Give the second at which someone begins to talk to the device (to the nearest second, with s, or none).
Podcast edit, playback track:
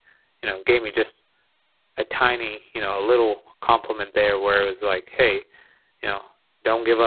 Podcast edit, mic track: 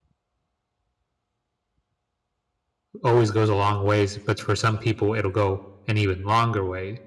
3 s